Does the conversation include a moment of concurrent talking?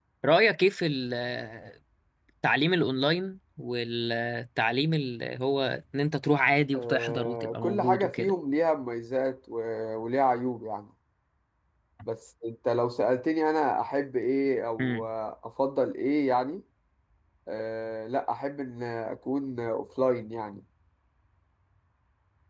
Yes, from 6.7 s

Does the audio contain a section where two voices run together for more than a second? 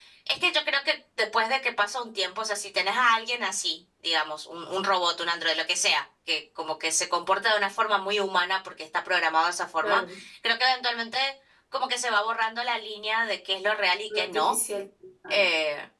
No

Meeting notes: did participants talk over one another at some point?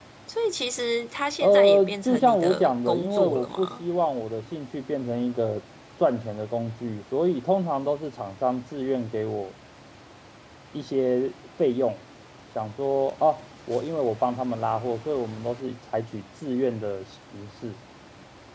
Yes, from 1.4 s

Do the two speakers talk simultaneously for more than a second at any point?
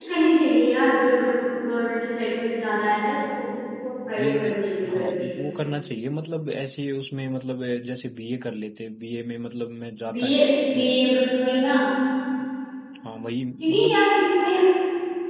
No

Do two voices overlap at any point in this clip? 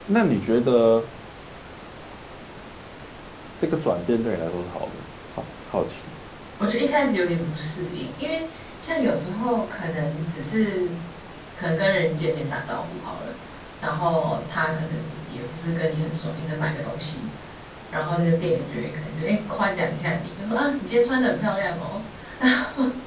No

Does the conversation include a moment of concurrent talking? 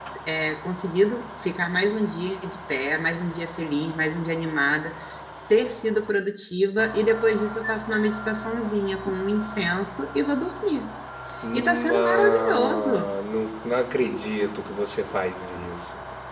Yes, from 11.5 s

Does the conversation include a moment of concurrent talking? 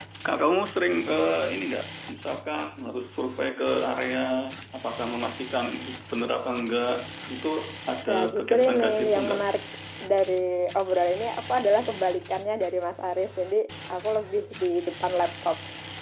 Yes, from 8.1 s

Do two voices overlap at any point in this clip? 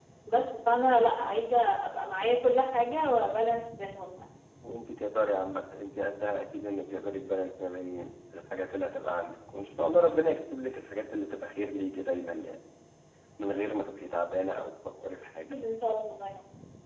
No

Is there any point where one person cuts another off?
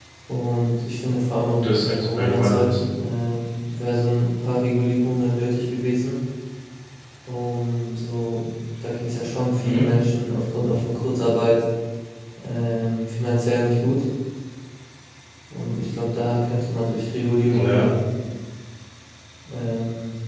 Yes, from 1.5 s

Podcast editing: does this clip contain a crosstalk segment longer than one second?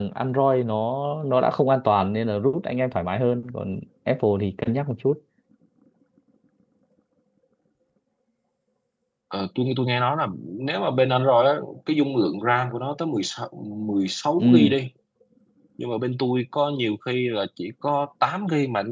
No

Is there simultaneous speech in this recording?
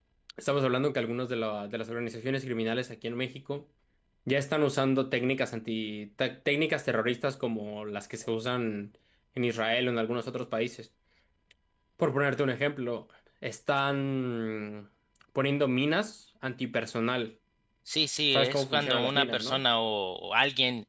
Yes, from 18.3 s

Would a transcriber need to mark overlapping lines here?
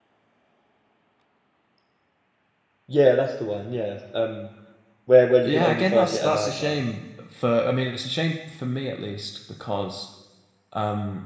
Yes, from 5.4 s

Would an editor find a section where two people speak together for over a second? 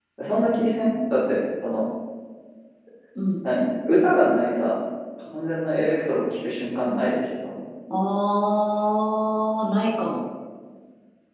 No

